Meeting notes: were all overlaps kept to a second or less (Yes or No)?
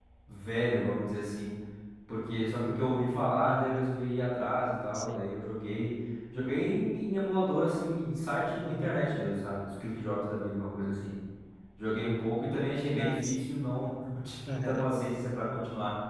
Yes